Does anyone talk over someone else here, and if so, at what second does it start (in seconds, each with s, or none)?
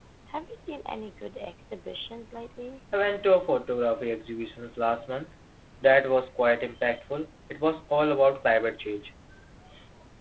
none